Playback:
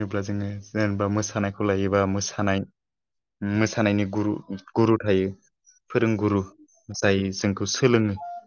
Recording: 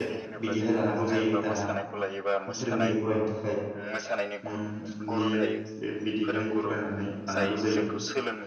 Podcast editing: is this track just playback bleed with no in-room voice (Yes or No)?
No